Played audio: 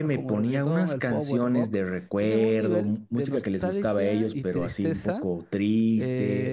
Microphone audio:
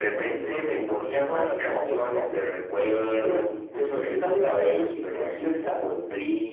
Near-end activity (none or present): none